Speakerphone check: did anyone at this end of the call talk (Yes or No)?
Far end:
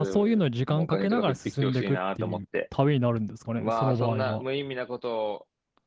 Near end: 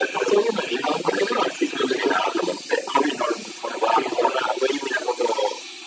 No